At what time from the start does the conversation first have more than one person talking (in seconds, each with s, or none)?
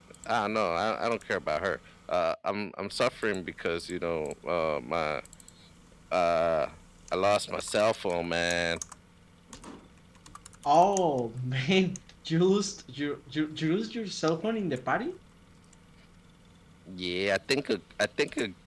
none